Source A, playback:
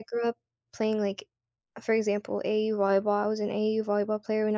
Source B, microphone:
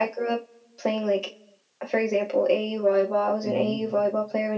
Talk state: both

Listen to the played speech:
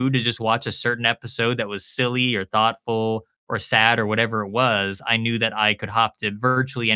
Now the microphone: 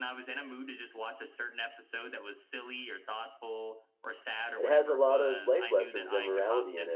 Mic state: both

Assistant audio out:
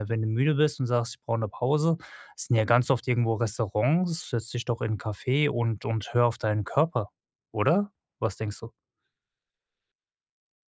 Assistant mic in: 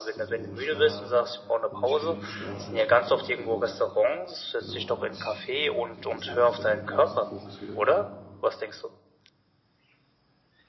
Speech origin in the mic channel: both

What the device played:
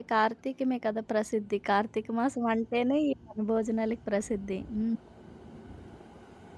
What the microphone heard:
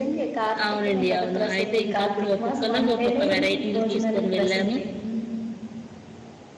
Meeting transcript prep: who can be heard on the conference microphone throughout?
both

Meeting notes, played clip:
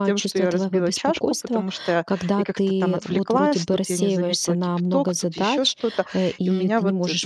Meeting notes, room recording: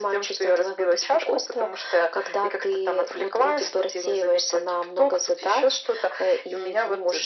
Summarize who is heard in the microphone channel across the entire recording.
echo only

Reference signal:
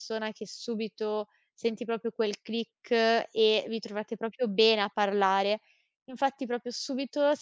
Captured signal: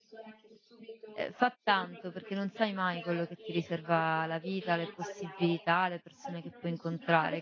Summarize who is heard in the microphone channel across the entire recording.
both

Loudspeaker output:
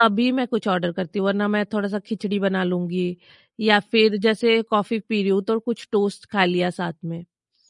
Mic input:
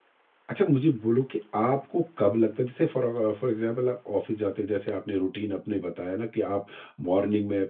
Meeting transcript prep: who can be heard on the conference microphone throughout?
user only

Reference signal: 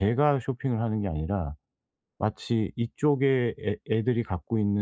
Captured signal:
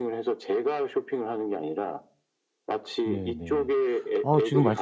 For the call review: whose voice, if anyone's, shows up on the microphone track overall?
both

